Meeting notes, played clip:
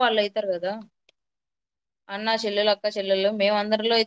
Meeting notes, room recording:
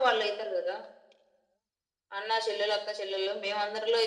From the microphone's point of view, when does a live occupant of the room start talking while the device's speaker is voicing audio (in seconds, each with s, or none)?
none